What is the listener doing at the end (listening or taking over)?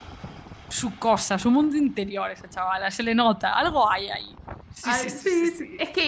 taking over